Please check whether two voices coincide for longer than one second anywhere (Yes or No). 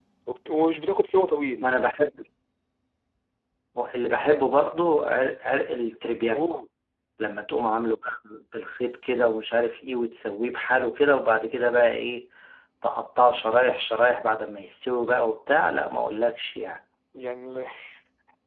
No